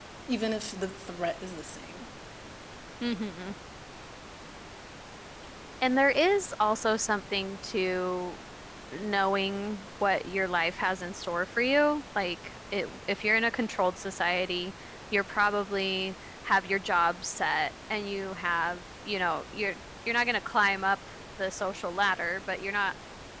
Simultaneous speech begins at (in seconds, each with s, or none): none